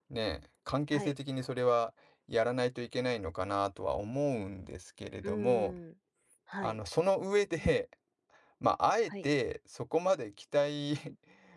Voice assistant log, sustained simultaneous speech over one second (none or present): none